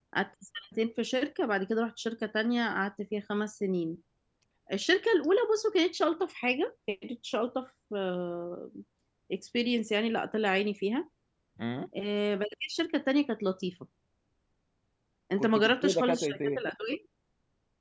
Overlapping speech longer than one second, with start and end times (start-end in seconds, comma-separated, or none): 15.4-16.6